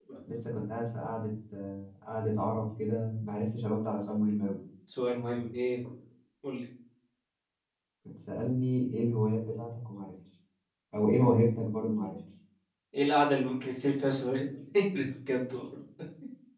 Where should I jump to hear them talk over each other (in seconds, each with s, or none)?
none